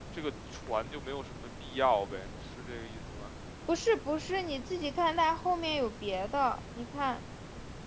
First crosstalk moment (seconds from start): none

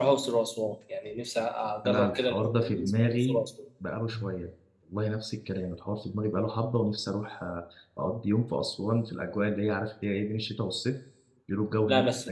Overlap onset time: 1.9 s

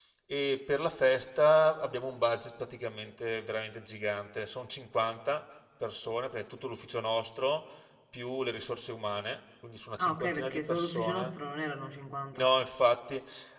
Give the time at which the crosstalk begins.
10.0 s

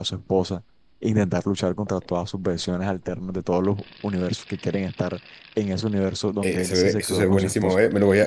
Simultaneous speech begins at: 6.4 s

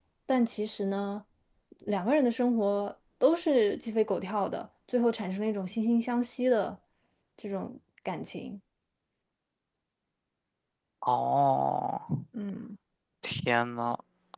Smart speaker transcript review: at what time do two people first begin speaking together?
none

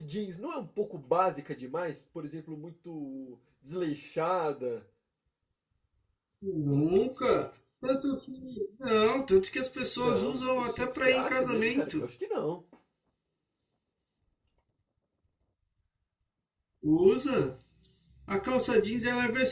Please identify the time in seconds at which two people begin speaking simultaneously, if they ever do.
10.0 s

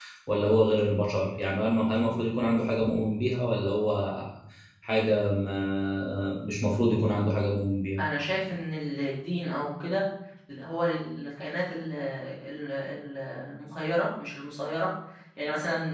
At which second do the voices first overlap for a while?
none

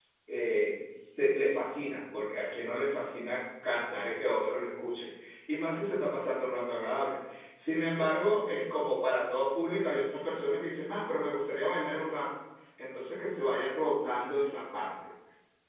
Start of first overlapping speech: none

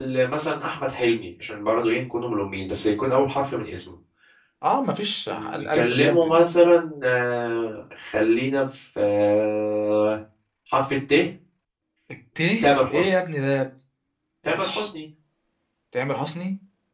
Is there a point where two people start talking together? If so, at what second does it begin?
5.3 s

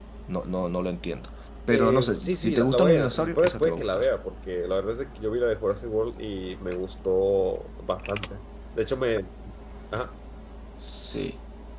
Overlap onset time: 1.7 s

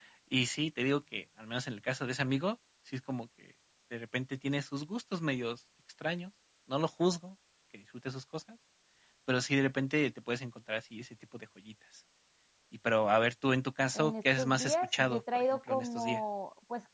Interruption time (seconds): 13.9 s

